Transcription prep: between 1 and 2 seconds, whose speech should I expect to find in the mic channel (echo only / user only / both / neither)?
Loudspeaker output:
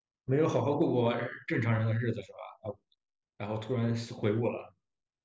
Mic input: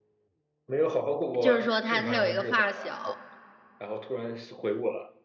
both